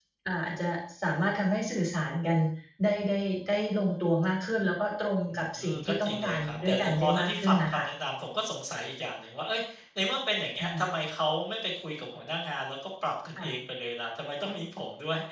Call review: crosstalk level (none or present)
present